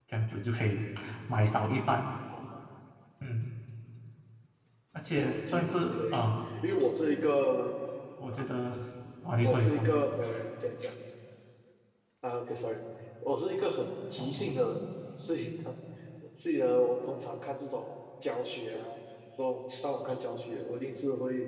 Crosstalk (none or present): present